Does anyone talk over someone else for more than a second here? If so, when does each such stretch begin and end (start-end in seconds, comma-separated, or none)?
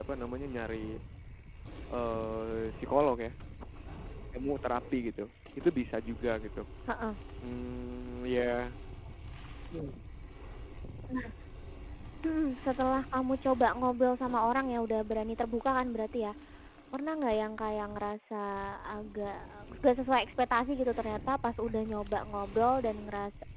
none